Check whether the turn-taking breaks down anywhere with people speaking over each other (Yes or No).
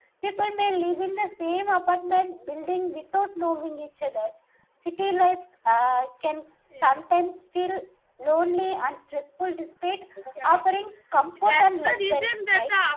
Yes